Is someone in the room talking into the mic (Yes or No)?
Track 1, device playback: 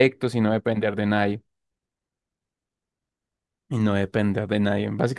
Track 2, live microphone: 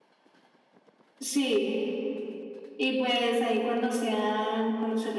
Yes